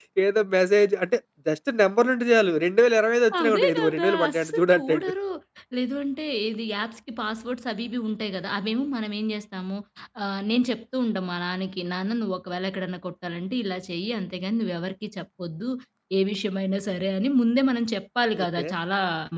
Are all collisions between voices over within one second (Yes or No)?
No